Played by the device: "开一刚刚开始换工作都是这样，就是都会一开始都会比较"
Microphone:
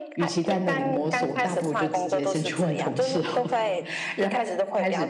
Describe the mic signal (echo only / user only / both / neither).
both